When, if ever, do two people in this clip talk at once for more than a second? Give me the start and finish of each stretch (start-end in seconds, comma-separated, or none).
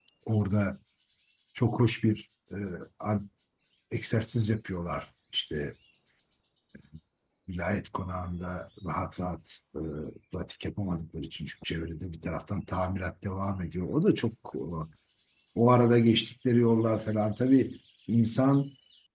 none